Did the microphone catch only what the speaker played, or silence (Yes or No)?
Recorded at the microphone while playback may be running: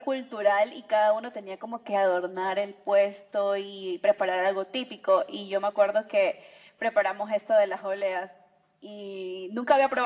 Yes